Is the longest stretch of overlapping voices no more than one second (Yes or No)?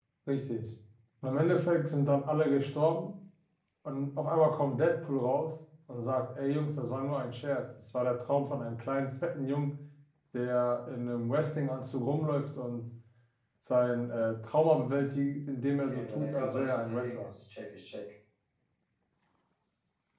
No